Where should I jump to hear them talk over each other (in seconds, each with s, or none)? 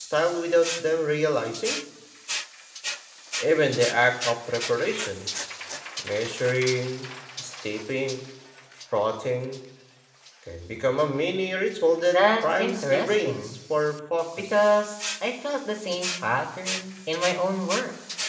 12.1 s